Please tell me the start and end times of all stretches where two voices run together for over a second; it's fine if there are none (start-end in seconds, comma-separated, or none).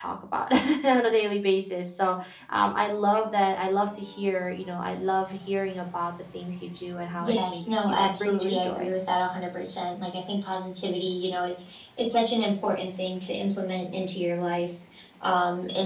7.2-8.9